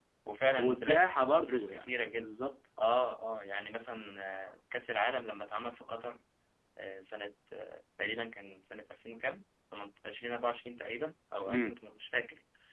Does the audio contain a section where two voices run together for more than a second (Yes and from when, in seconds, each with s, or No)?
Yes, from 0.5 s